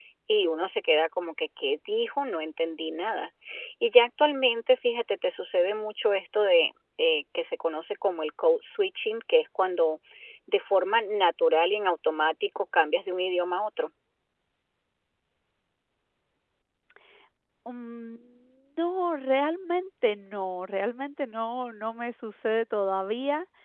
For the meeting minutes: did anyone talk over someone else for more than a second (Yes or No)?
No